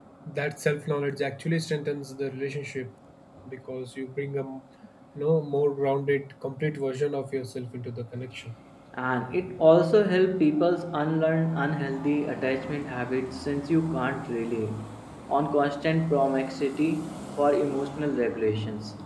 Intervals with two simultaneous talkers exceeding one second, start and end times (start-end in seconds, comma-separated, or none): none